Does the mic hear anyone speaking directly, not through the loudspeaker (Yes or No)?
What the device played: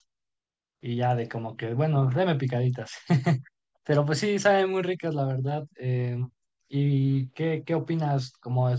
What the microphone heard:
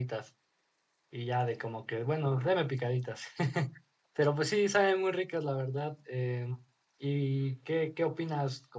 No